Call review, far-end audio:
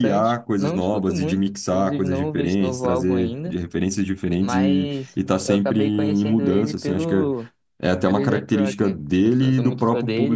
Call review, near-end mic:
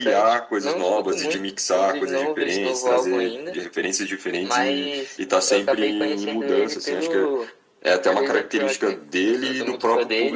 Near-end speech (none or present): none